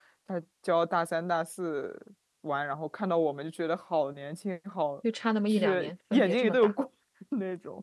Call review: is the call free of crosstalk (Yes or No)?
No